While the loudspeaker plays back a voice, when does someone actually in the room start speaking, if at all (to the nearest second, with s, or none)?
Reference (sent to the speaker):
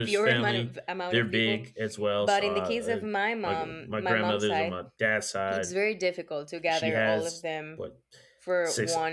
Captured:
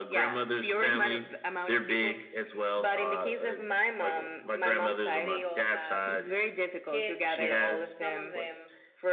5 s